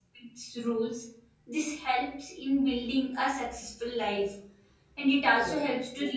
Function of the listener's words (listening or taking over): listening